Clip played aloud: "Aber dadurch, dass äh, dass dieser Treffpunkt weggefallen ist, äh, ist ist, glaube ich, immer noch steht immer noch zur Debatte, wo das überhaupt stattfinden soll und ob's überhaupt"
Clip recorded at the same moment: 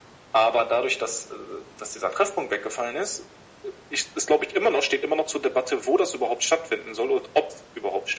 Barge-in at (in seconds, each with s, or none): none